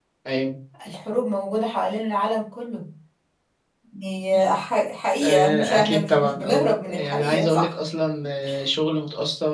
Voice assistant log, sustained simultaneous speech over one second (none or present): present